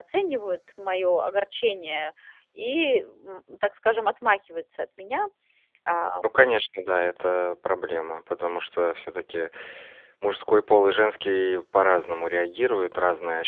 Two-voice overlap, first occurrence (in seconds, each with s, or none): none